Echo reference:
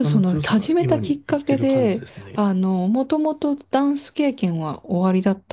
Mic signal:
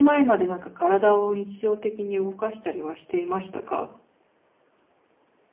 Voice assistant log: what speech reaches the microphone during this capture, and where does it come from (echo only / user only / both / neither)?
user only